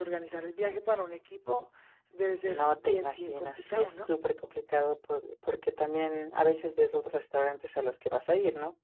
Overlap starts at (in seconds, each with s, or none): 2.4 s